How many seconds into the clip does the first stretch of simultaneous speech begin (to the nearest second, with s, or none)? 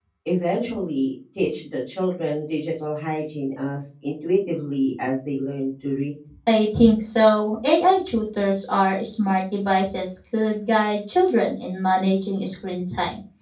none